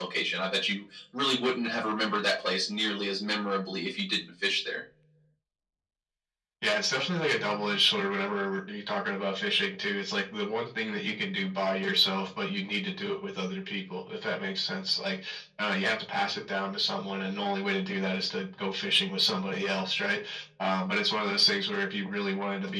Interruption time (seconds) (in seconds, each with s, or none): none